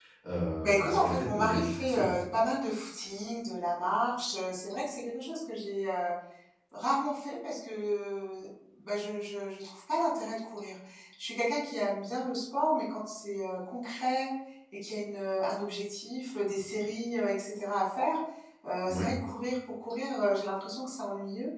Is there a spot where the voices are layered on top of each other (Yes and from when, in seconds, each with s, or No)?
Yes, from 0.6 s